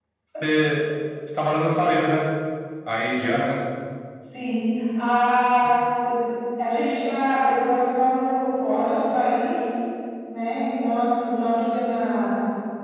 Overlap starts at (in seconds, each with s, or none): none